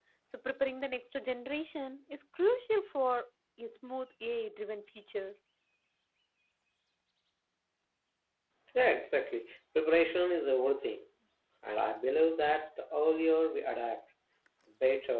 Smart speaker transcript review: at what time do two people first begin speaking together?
none

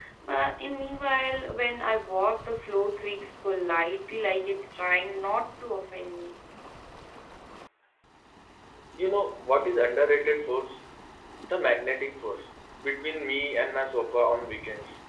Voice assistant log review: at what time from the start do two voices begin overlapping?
none

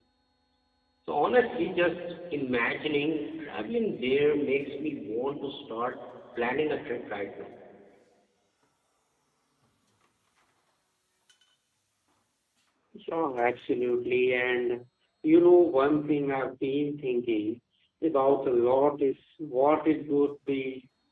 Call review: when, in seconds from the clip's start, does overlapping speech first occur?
none

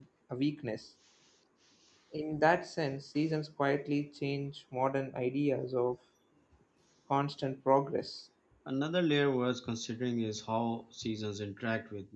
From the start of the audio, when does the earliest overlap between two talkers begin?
none

